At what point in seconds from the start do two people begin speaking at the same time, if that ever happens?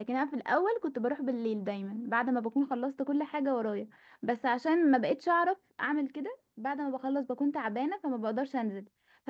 none

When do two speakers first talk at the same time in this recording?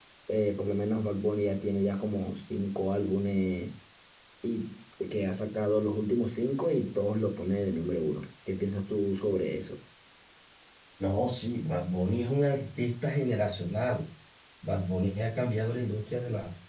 none

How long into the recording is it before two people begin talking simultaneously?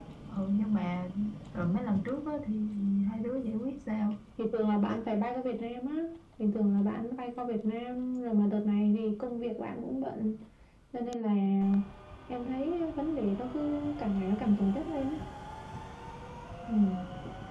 none

